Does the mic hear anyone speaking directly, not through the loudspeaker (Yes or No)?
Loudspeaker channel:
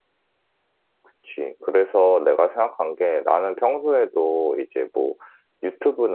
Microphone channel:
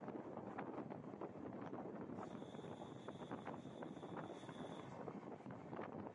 No